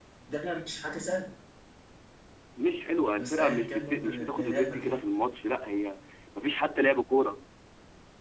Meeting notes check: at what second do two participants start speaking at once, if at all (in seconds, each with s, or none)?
3.1 s